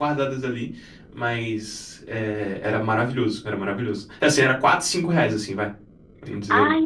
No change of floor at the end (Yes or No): No